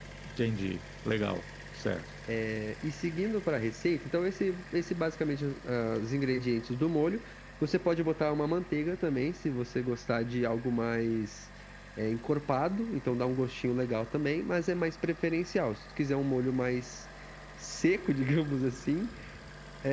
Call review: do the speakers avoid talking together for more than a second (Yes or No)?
Yes